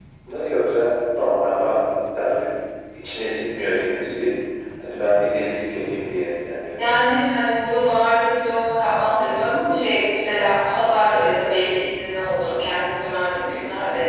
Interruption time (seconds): none

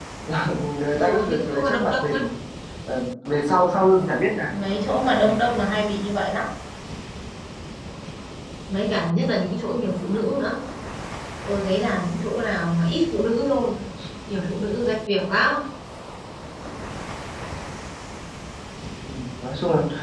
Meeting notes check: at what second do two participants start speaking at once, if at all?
1.0 s

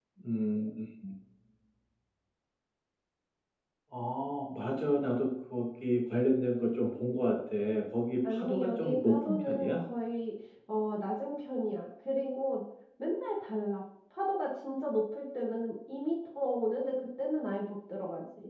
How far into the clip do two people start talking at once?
8.2 s

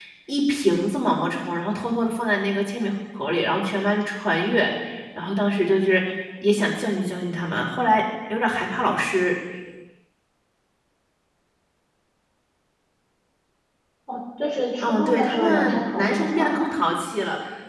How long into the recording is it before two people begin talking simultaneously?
14.8 s

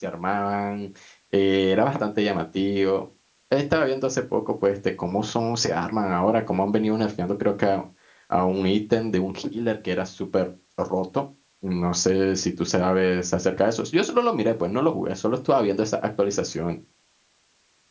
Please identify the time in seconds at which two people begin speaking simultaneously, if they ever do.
none

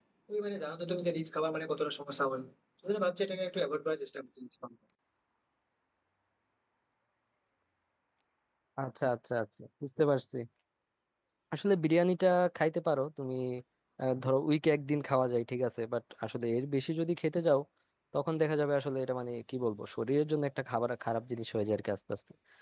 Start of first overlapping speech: none

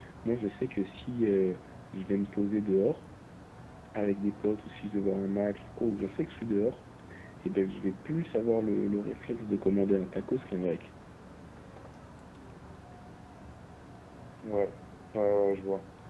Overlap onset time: none

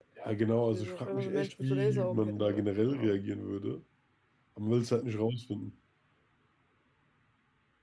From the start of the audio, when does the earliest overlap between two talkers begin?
0.7 s

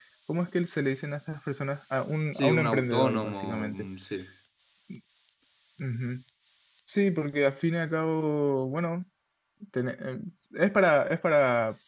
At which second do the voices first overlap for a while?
2.3 s

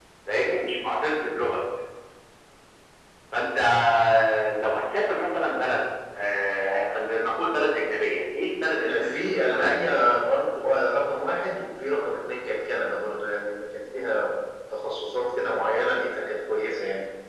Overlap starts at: 8.8 s

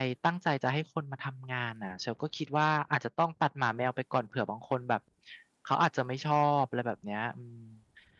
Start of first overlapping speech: none

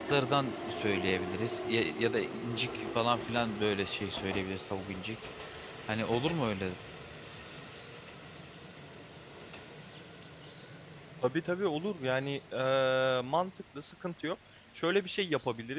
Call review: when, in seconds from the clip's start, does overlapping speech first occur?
none

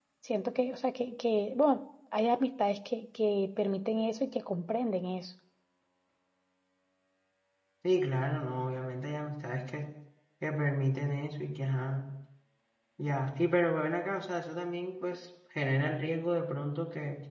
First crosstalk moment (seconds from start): none

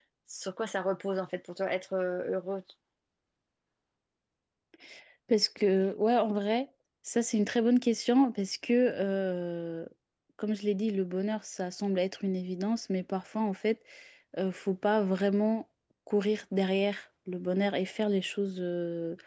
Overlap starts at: none

